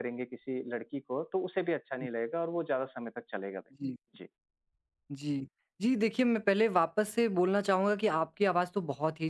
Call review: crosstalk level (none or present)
none